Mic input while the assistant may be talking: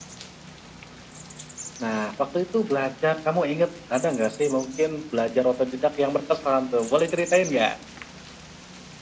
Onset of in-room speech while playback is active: none

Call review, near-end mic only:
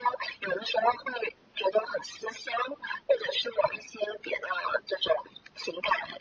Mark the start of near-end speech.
none

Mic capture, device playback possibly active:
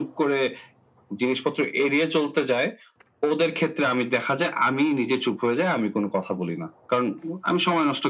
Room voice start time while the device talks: none

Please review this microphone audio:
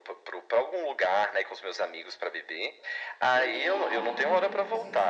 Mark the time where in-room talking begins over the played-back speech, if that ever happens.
3 s

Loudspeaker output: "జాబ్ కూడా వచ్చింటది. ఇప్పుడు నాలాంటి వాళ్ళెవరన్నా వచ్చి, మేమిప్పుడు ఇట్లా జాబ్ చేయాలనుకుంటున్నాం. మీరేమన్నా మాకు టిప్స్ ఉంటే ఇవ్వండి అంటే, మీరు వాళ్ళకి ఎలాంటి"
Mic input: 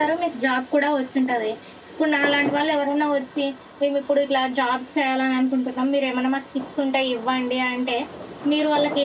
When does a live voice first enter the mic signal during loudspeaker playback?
none

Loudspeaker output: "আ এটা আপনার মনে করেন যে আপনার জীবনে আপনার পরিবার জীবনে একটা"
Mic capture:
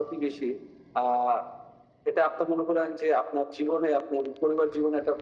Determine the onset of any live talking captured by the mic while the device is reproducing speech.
none

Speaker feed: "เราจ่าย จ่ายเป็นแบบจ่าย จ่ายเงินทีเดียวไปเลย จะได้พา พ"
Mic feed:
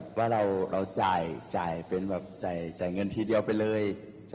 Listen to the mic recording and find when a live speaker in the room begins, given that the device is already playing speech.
none

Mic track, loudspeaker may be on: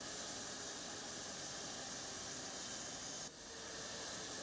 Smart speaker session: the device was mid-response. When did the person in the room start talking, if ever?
none

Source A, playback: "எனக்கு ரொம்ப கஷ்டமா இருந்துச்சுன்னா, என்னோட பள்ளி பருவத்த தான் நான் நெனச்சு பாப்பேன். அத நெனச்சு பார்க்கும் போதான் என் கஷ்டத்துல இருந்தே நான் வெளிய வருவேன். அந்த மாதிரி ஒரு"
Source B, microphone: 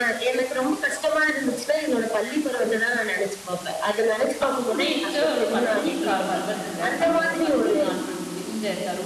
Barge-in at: 4 s

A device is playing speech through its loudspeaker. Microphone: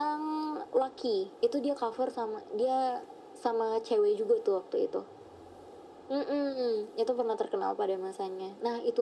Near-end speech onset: none

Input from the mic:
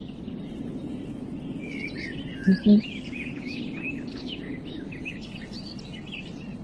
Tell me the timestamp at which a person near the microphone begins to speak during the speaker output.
2 s

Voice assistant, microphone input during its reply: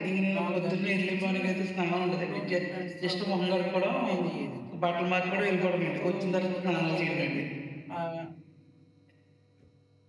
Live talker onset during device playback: 0 s

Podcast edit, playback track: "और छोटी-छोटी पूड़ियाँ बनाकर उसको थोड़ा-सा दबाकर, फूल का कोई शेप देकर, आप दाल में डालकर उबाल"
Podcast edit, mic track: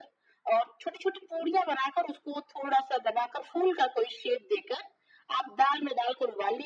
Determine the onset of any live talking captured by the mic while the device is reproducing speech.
none

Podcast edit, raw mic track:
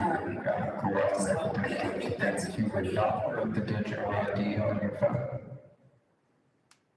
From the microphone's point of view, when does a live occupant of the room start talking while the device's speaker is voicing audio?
none

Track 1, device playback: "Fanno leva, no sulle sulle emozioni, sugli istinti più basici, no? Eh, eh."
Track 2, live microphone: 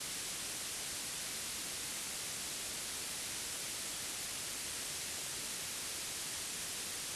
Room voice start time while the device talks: none

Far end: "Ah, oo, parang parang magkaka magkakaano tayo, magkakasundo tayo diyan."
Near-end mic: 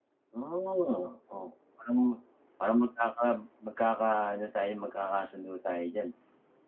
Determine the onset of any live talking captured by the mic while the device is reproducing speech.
none

